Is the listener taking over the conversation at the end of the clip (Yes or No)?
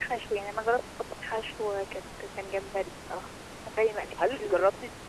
Yes